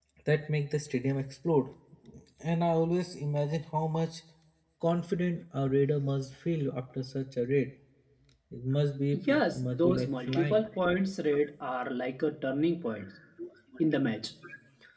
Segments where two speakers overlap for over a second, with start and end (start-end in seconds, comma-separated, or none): 9.3-10.7